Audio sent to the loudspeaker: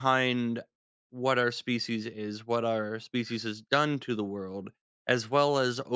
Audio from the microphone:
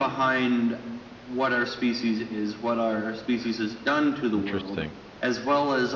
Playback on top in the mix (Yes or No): Yes